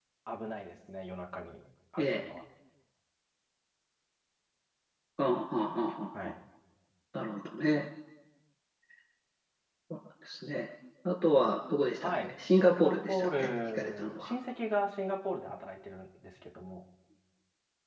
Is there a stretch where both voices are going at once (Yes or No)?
Yes